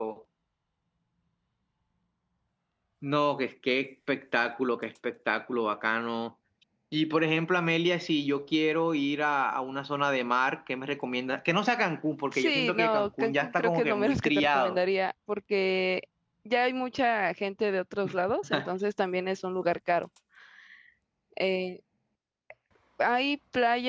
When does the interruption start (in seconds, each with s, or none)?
12.3 s